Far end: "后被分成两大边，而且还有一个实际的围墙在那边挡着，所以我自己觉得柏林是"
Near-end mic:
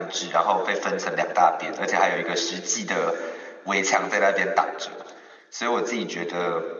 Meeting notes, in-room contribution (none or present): none